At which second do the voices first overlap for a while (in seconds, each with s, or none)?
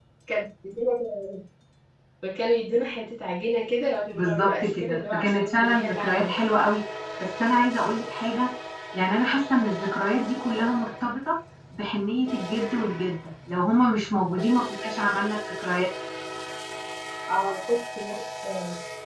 4.1 s